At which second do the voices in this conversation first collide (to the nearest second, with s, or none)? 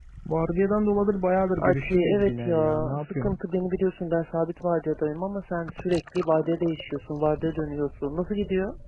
2 s